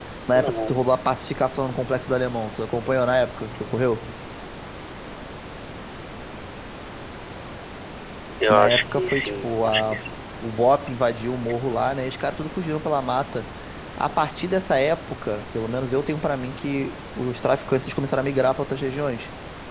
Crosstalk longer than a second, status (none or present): present